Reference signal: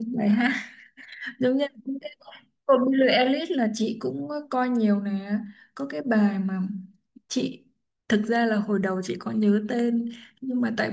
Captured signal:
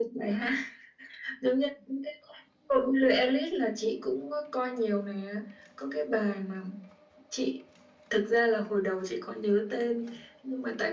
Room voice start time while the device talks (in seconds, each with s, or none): none